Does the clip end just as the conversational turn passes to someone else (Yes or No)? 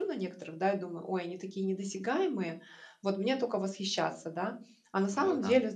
No